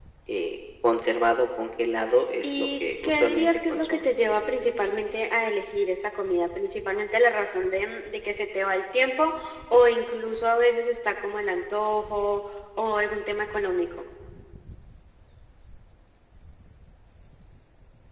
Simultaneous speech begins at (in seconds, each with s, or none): 2.4 s